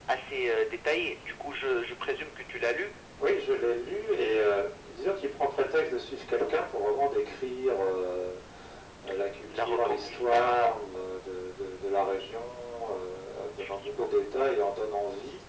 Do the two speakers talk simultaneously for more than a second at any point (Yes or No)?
Yes